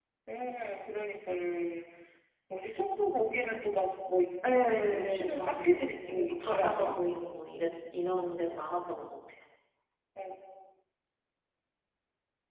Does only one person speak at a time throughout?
No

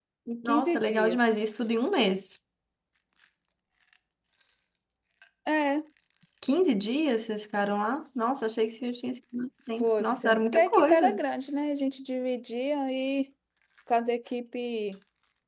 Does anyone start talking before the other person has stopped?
Yes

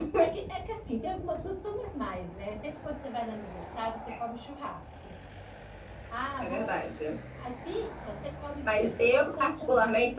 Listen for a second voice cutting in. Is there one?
Yes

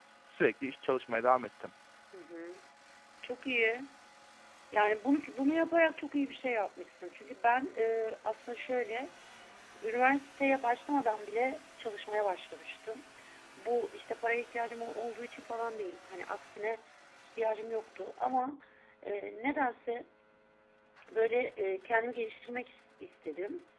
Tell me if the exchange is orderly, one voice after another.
Yes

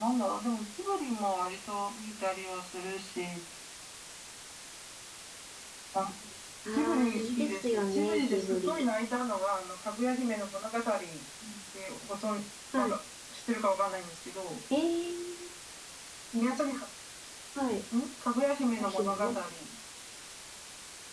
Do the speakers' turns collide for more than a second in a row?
Yes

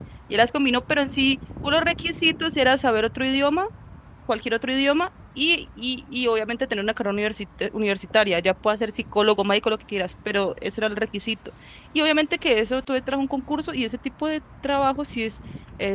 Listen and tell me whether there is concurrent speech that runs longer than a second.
No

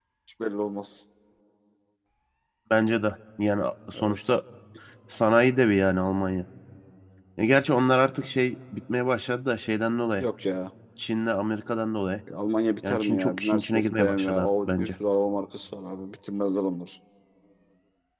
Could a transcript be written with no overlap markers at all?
No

